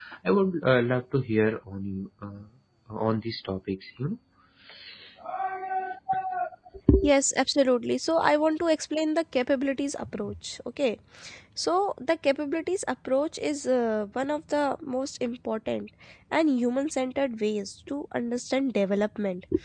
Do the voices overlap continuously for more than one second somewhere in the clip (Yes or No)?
No